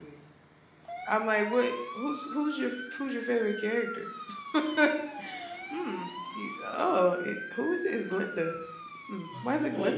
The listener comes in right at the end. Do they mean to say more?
Yes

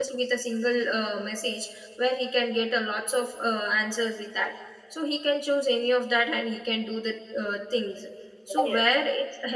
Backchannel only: Yes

